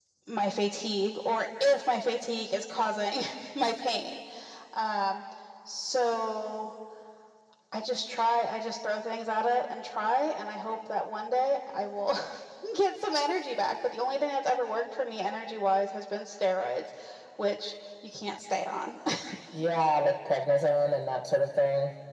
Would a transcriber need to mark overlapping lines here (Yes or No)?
No